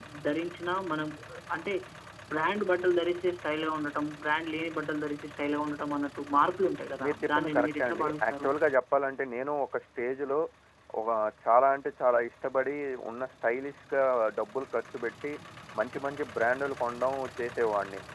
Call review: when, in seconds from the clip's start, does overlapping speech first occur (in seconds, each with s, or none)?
7.0 s